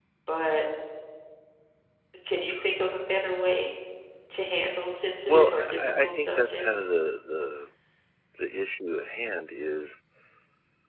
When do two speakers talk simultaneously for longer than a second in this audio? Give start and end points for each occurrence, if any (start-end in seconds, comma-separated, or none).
5.3-6.7